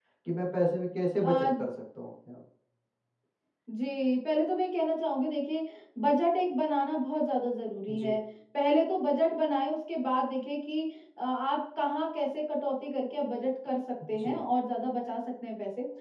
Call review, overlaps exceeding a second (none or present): none